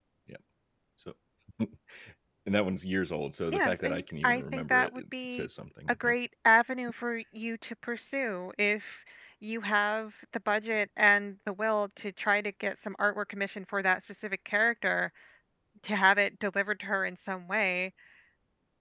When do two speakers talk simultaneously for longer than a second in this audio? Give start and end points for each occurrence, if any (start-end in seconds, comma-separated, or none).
3.5-5.5